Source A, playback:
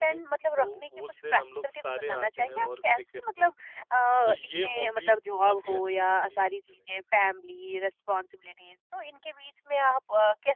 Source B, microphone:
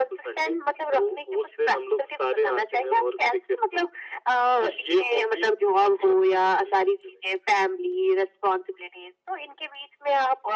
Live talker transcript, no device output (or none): none